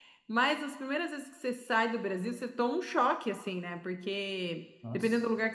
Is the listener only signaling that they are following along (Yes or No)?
Yes